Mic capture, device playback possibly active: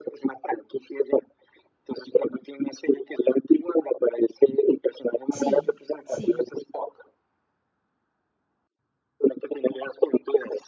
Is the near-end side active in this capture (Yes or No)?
Yes